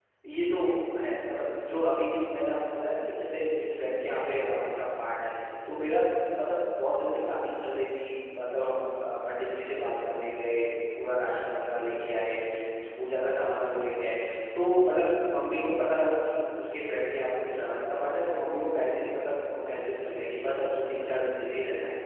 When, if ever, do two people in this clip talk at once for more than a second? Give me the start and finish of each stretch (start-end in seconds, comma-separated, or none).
none